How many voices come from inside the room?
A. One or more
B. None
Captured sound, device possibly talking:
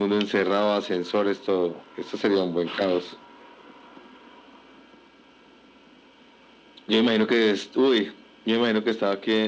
B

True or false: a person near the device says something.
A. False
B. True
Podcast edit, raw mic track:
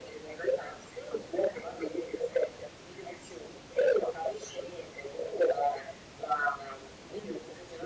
A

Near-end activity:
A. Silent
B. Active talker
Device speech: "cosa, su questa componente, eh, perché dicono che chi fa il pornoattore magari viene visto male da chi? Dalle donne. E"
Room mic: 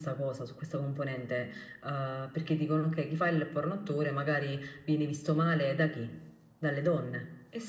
A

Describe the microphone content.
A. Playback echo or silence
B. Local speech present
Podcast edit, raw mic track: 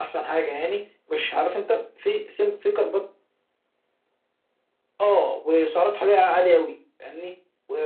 A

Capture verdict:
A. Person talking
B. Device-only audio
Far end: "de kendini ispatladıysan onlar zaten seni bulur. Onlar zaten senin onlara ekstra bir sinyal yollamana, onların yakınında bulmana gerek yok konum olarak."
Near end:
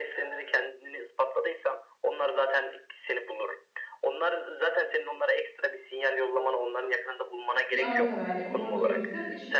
A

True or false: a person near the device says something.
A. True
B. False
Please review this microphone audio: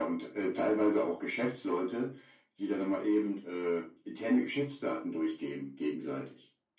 B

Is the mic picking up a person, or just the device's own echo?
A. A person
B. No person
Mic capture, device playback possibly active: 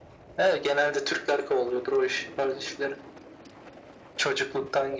B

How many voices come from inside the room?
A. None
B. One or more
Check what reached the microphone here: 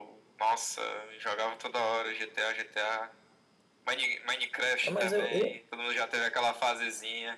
B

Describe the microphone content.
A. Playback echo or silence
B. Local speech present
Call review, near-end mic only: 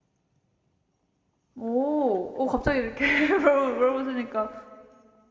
B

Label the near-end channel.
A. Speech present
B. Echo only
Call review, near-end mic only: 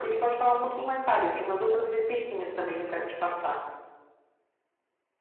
B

